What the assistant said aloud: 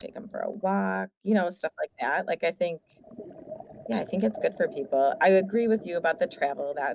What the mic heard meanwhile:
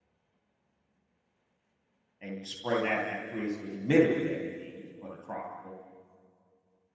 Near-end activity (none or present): present